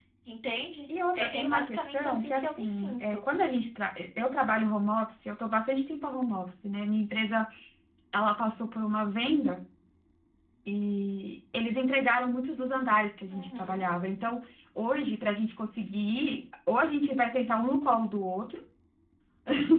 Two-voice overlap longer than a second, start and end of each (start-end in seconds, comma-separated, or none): 1.1-3.2